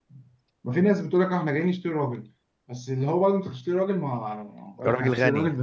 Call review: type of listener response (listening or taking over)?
listening